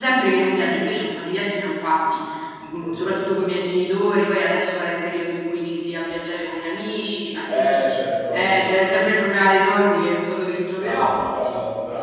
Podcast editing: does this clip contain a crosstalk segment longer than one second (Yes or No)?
No